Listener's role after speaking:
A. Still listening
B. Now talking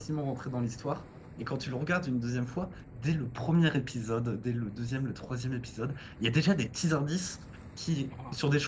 A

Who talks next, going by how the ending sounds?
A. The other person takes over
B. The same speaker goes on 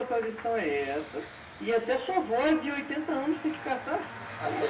A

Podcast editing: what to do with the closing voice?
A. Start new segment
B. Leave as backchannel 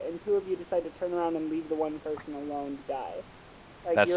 B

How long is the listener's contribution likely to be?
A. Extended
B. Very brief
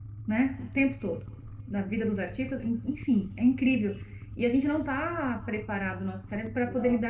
B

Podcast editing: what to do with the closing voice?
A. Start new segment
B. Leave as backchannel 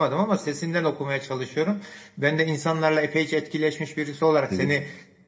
B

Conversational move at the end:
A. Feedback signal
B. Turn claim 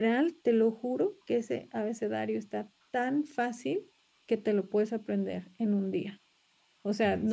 A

